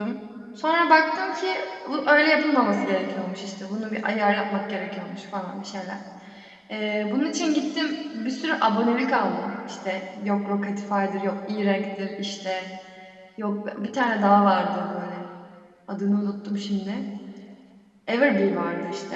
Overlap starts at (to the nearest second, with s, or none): none